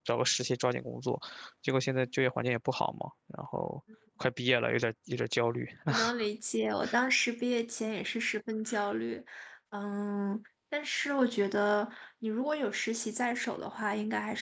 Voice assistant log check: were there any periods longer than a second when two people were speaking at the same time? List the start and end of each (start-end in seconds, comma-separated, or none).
none